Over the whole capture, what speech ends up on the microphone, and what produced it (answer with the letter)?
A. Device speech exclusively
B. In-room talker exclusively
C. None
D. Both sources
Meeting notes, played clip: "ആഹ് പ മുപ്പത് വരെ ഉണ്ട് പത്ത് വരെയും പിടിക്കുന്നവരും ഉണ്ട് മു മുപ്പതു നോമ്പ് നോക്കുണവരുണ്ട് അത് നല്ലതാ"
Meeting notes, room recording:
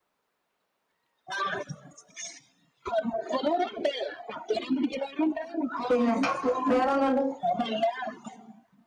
D